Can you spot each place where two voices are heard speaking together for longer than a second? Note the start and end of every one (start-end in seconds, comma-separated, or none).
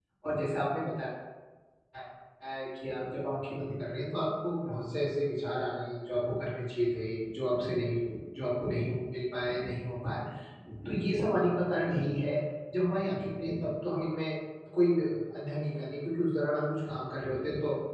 none